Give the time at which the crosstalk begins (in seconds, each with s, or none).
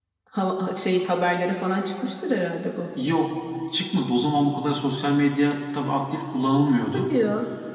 none